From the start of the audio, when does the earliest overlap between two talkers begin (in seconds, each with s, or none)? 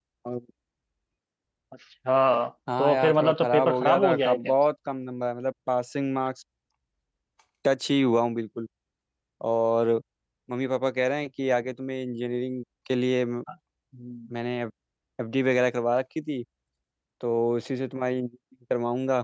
2.8 s